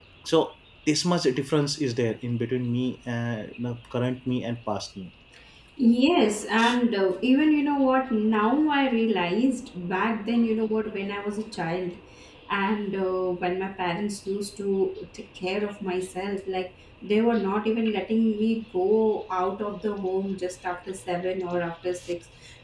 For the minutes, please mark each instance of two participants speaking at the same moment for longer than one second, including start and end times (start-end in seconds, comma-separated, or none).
none